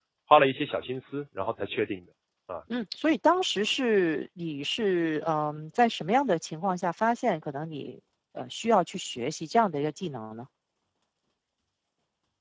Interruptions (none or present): none